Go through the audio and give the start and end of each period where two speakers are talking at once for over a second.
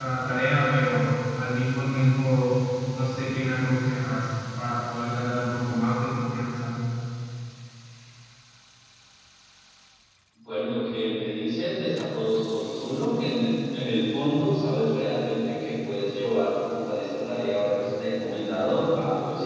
none

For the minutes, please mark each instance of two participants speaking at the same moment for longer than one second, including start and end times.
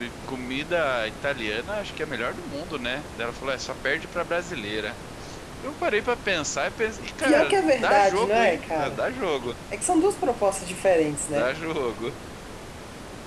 7.2-9.0

